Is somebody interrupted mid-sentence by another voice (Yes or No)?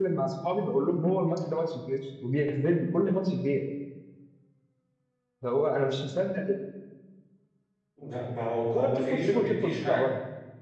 Yes